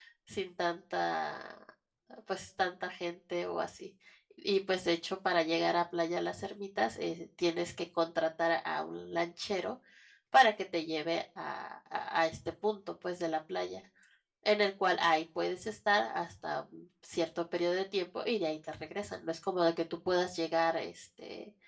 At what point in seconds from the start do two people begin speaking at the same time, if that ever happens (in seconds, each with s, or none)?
none